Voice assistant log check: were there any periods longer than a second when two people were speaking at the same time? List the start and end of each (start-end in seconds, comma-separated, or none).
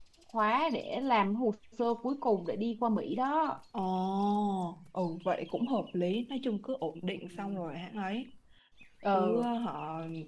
none